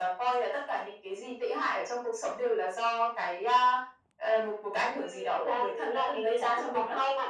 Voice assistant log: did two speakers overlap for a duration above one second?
Yes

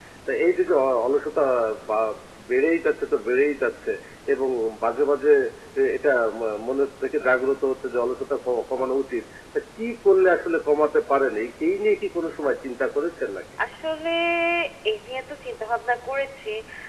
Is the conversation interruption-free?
Yes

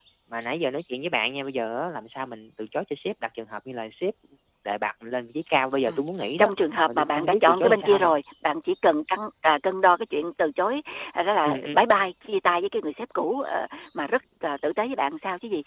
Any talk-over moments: Yes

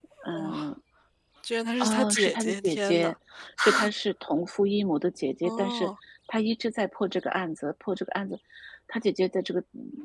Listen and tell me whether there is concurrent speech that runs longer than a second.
Yes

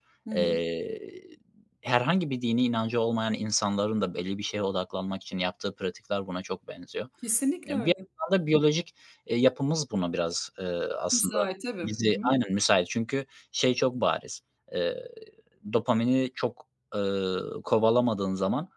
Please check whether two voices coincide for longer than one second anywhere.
No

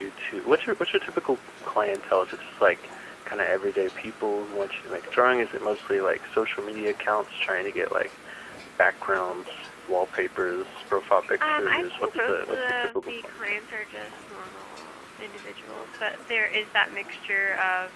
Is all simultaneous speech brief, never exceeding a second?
No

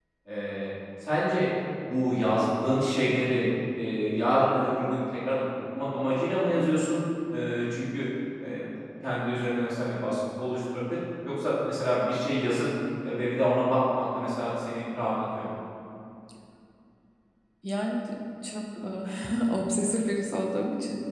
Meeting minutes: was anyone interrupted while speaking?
No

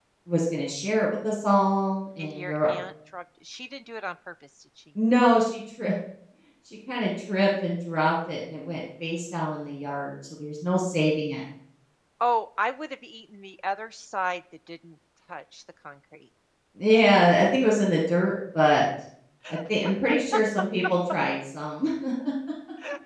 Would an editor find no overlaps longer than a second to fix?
Yes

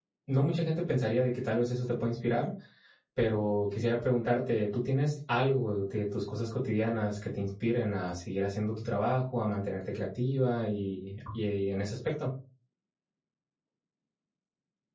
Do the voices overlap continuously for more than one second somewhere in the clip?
No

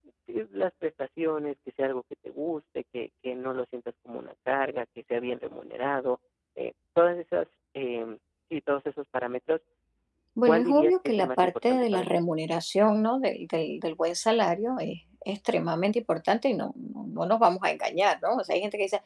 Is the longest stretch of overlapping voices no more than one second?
No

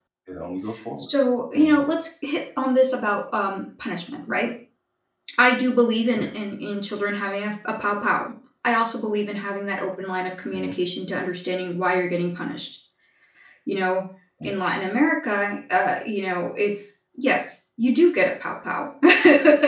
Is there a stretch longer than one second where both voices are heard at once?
No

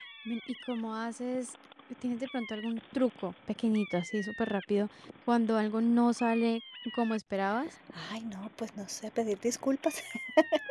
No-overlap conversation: Yes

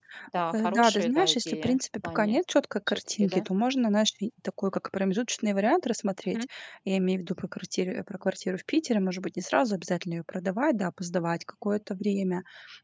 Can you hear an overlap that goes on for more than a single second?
Yes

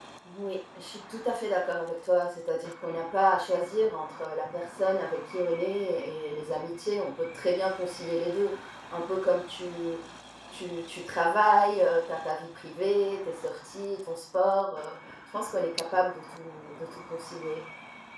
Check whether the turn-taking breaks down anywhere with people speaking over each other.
No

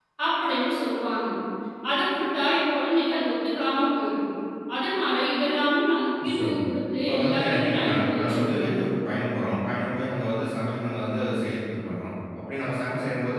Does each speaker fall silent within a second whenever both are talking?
No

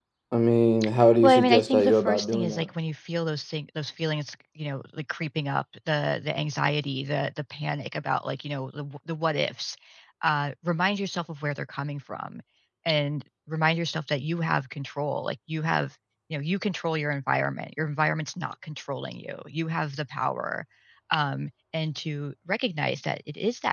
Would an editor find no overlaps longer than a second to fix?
No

